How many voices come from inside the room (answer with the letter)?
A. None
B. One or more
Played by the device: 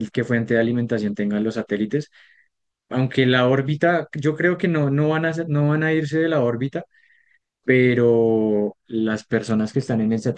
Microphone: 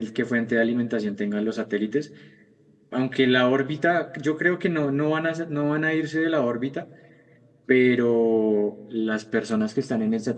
A